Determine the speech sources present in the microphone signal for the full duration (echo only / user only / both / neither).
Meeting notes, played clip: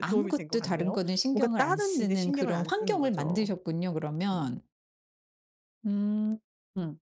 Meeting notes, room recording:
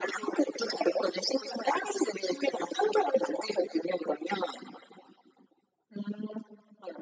echo only